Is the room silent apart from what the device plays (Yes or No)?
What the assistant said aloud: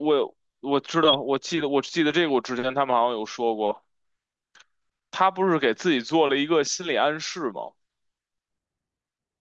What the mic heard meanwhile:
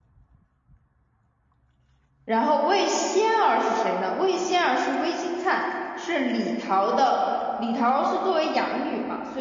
No